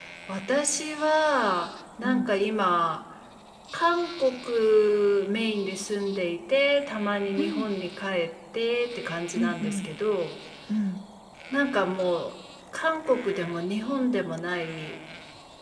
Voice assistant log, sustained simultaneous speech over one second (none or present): none